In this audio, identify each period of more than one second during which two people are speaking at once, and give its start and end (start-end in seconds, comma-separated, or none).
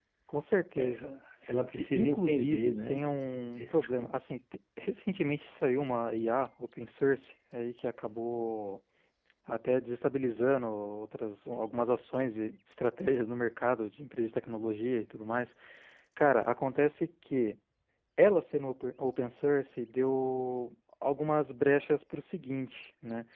1.8-3.0